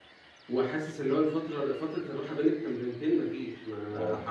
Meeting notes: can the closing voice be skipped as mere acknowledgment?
Yes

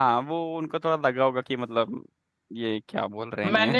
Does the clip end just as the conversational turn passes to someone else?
Yes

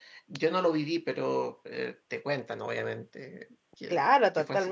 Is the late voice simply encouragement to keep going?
No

